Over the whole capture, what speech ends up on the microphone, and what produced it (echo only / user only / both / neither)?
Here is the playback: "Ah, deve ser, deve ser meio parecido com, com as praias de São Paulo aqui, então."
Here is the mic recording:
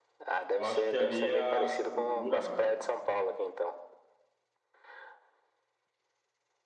both